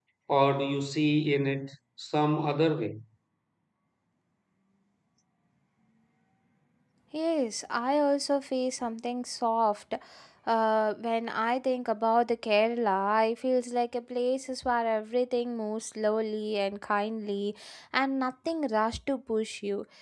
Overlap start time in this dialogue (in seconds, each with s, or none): none